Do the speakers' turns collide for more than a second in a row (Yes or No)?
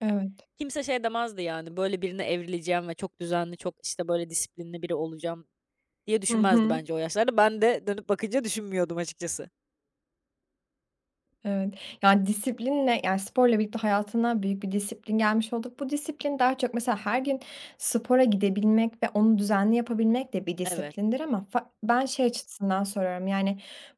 No